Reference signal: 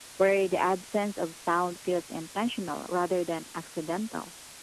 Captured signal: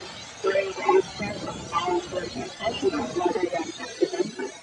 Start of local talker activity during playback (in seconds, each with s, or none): none